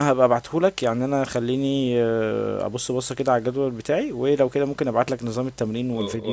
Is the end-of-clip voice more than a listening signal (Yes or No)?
Yes